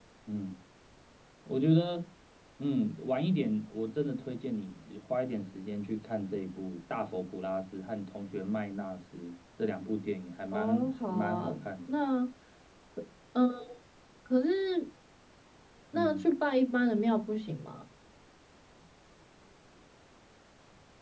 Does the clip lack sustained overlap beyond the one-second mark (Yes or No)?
No